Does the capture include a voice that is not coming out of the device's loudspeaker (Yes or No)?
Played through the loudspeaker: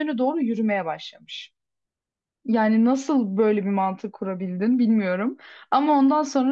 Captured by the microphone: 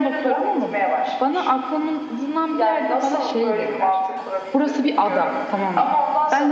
Yes